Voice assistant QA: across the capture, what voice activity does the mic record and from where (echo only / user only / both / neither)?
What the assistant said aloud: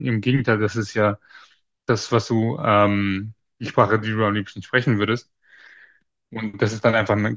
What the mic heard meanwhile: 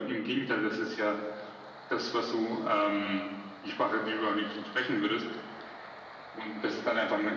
echo only